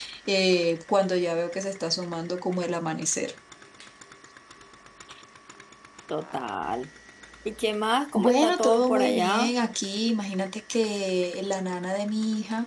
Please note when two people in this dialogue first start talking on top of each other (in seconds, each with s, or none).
8.2 s